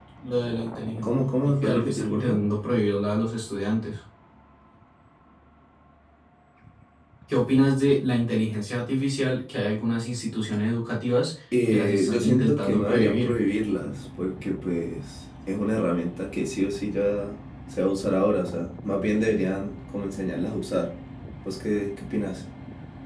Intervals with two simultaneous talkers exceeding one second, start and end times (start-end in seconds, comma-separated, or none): 1.0-2.4, 11.7-13.3